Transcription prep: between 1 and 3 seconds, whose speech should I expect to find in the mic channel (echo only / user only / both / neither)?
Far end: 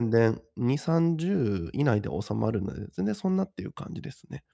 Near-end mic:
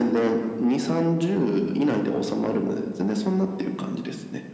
echo only